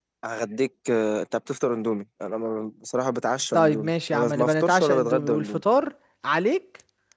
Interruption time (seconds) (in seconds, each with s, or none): 3.5 s